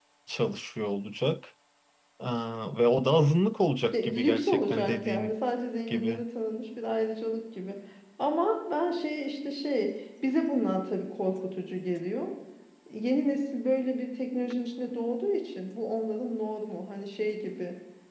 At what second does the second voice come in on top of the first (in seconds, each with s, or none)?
3.9 s